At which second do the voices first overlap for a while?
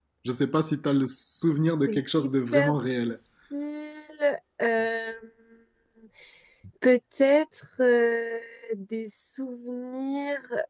2 s

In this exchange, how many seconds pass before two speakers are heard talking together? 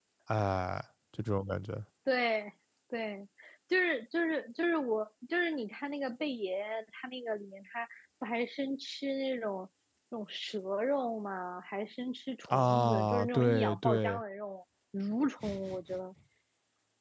12 s

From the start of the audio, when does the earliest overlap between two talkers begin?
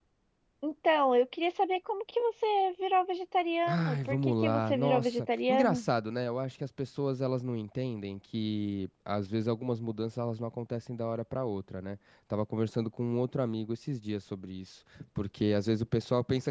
4 s

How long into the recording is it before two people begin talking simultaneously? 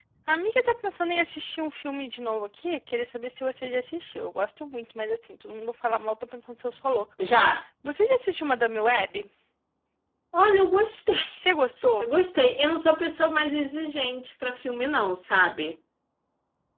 none

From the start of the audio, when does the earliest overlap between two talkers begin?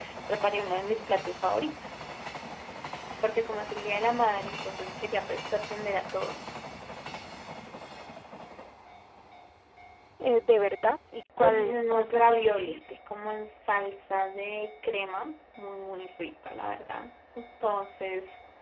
11 s

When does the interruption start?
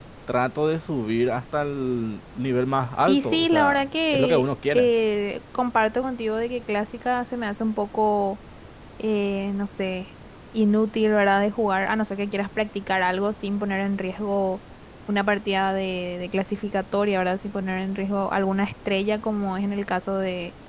3 s

